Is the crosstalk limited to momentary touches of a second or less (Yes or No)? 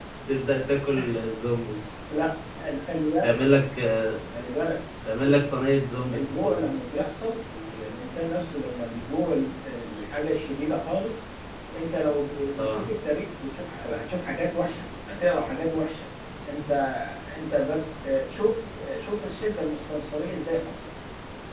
Yes